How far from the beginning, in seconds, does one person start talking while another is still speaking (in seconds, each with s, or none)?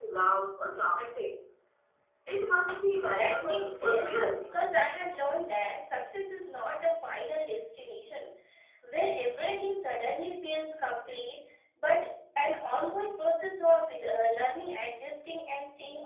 3.1 s